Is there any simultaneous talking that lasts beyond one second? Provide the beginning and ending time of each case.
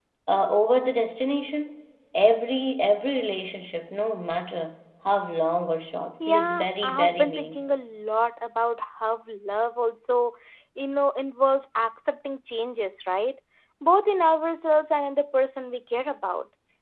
6.3-7.7

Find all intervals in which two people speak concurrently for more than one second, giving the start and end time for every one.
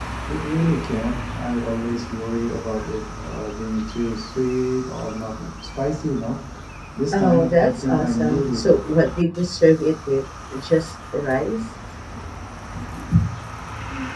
7.1-8.7

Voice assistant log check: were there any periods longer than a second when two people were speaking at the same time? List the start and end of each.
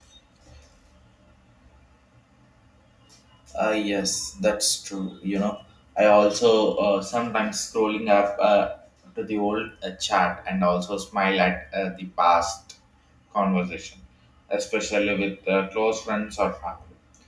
none

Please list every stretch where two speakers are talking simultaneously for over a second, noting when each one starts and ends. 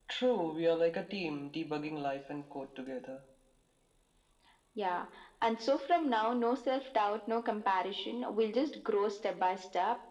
none

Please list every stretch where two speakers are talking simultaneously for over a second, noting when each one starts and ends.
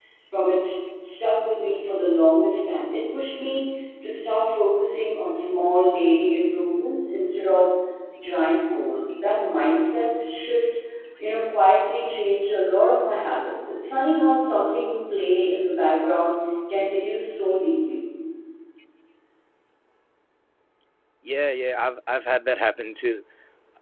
none

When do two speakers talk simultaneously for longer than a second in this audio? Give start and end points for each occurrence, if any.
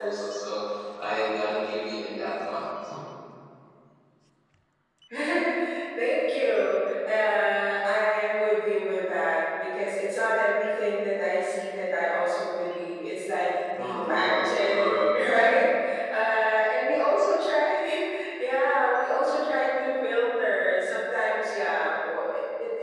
13.7-15.6

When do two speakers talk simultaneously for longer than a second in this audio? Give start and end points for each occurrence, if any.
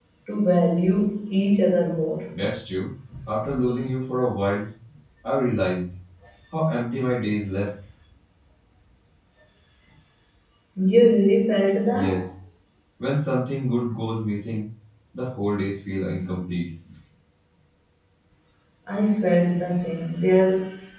none

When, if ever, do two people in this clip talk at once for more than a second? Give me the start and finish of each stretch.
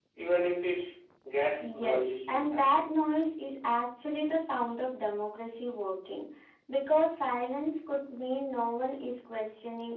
1.6-2.8

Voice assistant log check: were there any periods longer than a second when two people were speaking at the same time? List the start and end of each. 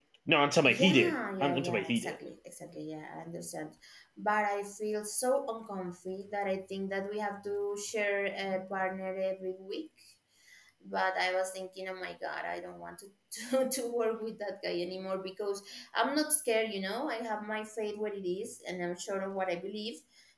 0.6-2.2

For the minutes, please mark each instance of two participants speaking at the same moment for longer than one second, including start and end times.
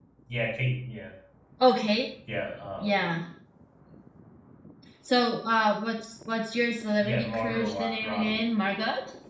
7.0-8.4

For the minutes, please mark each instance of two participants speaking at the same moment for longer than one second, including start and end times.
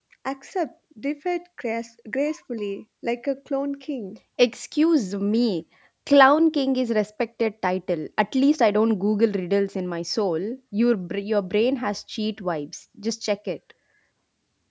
none

